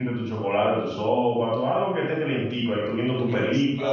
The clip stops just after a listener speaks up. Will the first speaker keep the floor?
No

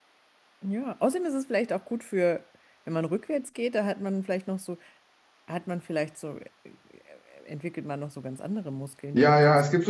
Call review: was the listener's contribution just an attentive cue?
No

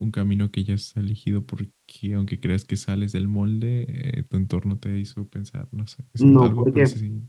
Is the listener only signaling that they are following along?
No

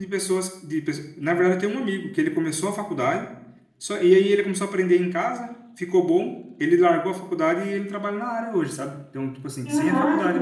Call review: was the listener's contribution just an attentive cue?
Yes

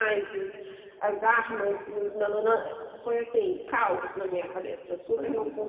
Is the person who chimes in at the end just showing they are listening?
No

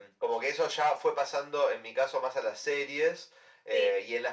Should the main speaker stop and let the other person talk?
No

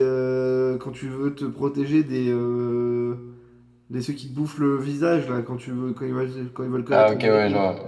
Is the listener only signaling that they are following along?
No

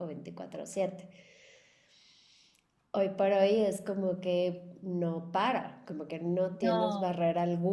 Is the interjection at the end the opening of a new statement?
No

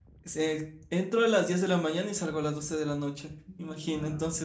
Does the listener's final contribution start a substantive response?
No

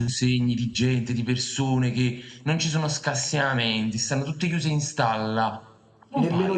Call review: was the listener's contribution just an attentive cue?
No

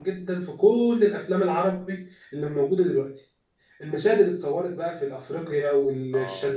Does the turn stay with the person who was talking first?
Yes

